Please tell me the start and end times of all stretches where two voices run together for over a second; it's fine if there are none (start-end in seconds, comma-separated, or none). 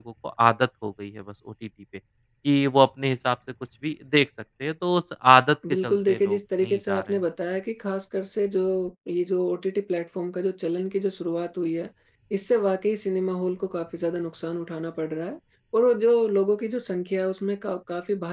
5.8-7.1